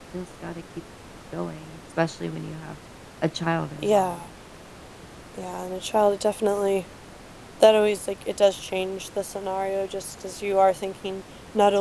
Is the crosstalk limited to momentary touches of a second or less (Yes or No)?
Yes